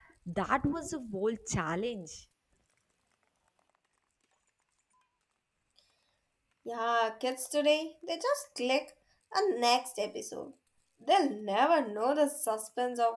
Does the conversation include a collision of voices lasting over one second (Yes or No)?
No